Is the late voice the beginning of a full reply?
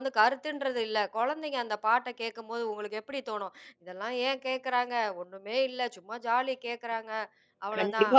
Yes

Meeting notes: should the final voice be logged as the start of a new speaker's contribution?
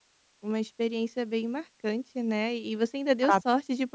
No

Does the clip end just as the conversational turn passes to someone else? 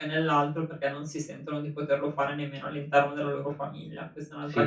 Yes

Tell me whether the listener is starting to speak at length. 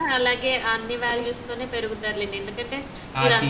No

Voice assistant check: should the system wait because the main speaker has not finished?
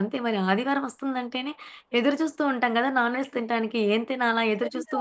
No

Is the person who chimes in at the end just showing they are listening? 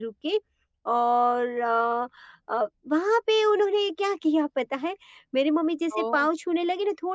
Yes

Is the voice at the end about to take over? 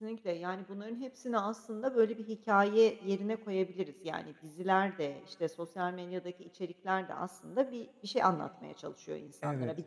No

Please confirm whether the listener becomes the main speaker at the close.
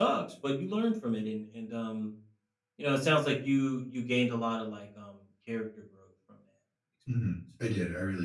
Yes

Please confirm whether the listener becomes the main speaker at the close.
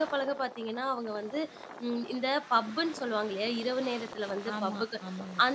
No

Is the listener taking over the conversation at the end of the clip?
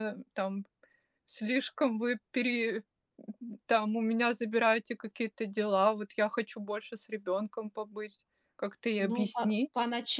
Yes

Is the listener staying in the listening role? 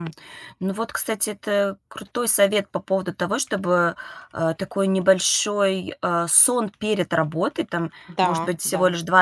Yes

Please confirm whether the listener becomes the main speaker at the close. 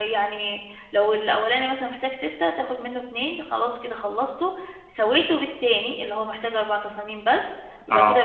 No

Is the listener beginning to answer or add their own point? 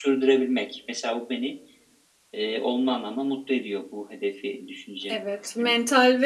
Yes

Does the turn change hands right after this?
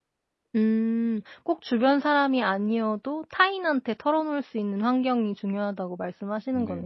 Yes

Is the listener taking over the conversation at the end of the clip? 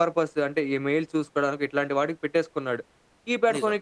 No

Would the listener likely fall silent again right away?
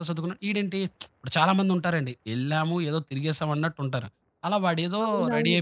No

